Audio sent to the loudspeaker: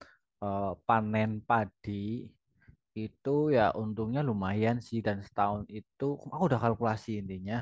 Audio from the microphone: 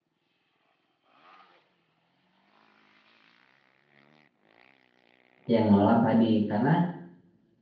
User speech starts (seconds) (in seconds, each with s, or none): 5.5 s